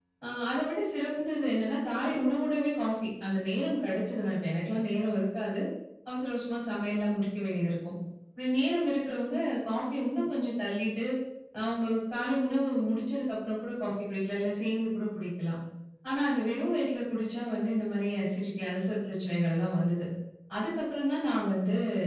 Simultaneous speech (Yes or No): No